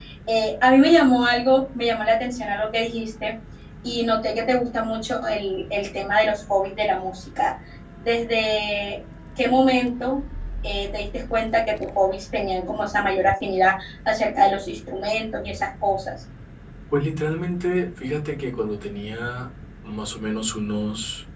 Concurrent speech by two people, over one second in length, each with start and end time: none

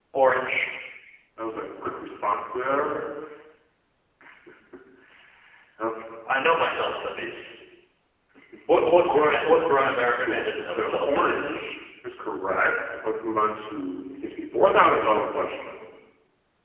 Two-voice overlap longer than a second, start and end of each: 10.3-11.5

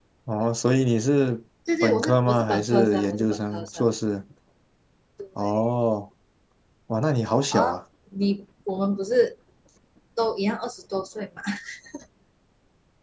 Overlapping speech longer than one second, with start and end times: 1.8-3.8

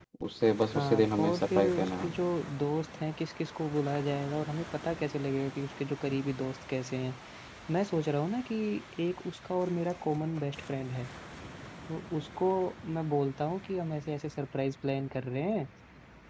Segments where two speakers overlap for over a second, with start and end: 0.6-2.1

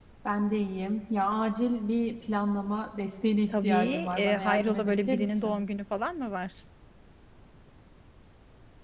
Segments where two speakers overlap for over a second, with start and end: 3.5-5.6

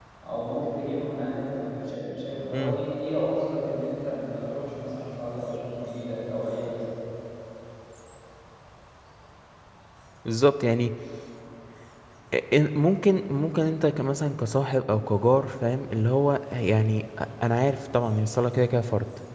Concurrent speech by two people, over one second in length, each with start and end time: none

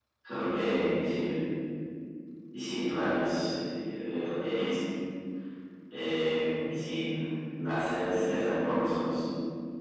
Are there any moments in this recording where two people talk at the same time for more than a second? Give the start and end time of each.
none

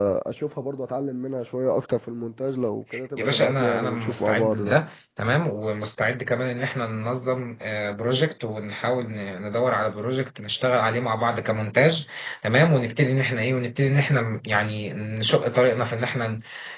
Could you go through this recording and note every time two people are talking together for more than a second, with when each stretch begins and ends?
3.2-4.7

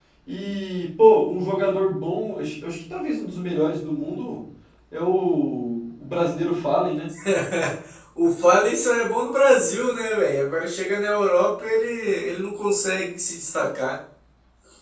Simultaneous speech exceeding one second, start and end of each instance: none

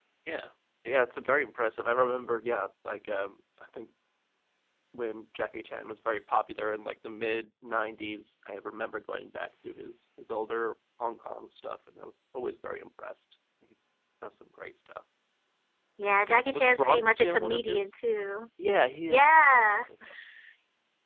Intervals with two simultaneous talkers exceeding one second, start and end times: 16.5-17.9

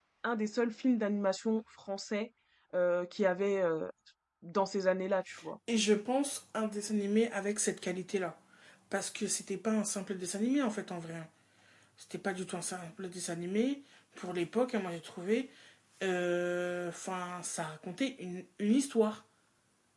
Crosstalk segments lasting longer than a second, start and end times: none

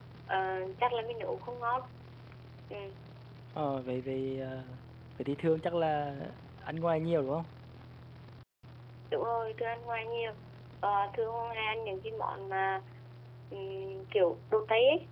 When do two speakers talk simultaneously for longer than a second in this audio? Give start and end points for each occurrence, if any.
none

